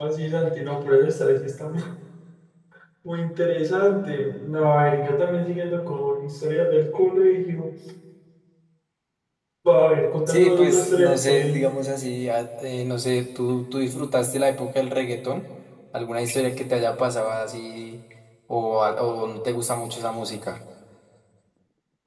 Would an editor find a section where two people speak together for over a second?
Yes, from 10.3 s

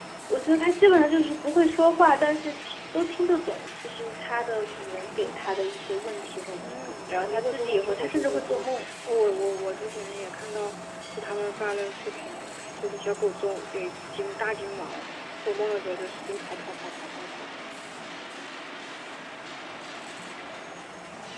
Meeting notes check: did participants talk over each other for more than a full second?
Yes, from 6.6 s

